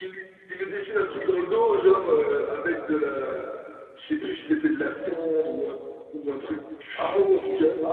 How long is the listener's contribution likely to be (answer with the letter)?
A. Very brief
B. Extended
B